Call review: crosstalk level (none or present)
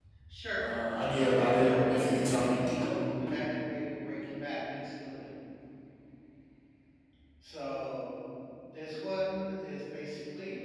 present